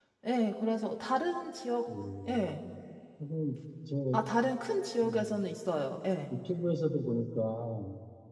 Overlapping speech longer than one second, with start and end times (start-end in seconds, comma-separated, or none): none